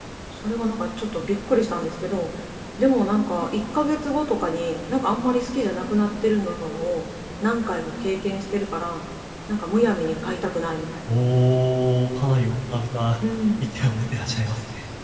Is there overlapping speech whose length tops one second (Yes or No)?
No